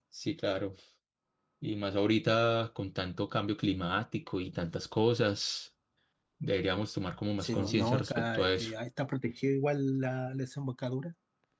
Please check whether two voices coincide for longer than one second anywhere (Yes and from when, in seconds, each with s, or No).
Yes, from 7.4 s